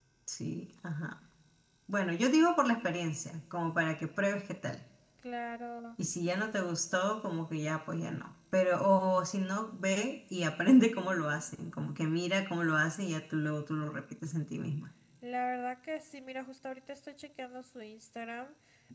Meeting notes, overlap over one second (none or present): none